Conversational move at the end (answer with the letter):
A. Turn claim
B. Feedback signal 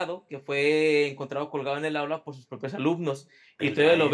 B